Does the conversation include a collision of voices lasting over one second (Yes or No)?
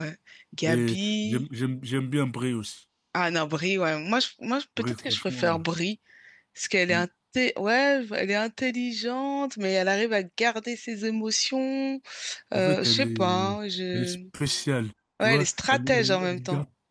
Yes